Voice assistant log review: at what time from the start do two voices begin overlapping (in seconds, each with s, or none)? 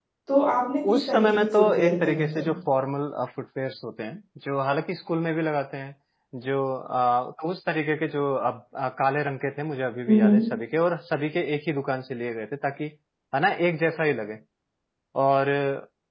0.9 s